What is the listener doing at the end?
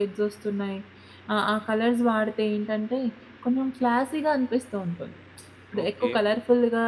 listening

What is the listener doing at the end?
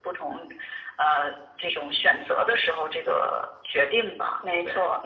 taking over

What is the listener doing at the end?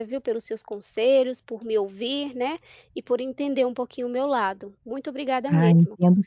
taking over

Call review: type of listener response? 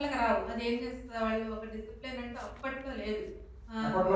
listening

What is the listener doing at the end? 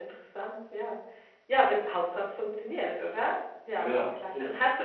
listening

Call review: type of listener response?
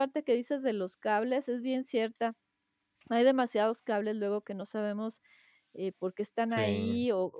listening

